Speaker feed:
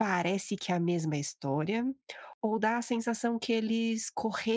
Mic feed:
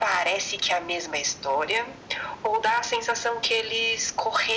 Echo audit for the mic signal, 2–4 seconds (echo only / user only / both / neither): echo only